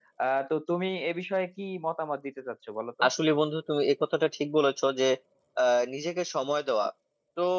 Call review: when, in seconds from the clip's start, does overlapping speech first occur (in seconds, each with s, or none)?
none